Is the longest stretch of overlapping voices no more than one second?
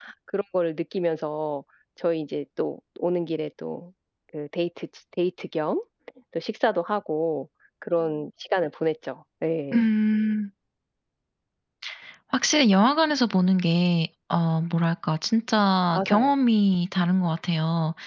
Yes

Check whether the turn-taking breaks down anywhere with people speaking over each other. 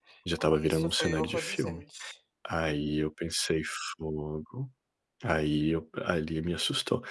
Yes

